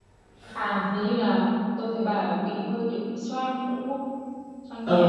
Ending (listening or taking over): taking over